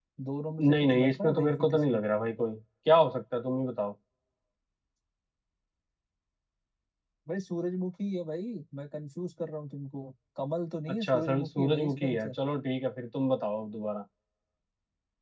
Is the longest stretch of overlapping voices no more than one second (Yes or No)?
No